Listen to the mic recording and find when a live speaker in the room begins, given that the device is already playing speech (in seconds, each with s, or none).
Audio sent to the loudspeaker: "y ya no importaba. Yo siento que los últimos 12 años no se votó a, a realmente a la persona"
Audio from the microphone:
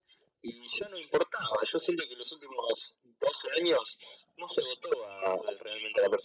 none